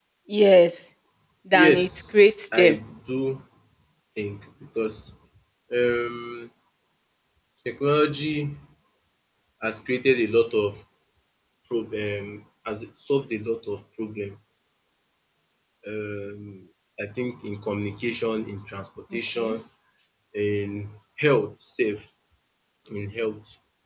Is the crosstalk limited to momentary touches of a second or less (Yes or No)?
No